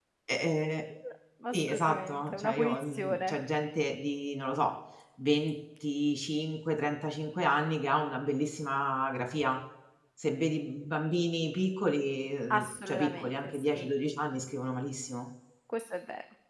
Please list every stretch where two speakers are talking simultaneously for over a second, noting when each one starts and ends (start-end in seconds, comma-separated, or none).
1.5-3.4, 12.5-13.9